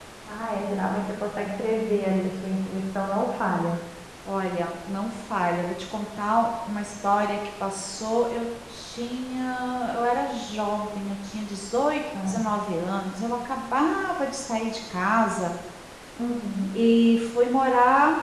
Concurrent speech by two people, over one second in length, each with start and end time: none

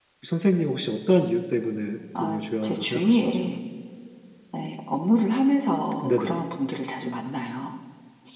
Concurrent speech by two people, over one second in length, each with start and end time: 2.2-3.6

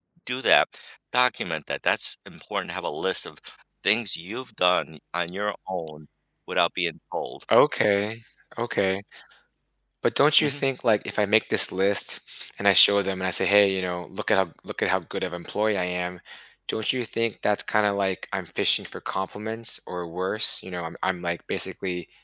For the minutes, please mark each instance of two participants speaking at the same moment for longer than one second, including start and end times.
none

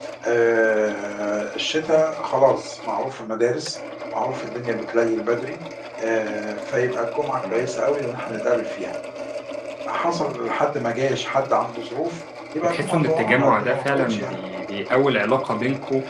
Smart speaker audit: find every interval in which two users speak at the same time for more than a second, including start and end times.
12.6-14.4

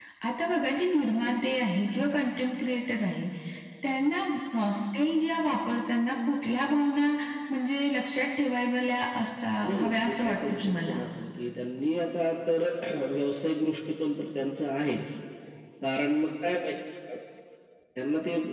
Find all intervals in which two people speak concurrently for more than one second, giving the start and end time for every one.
9.6-11.0

